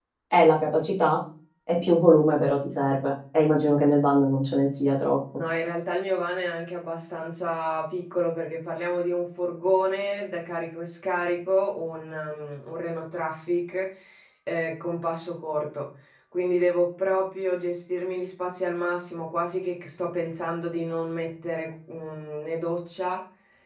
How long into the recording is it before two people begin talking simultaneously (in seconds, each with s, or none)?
none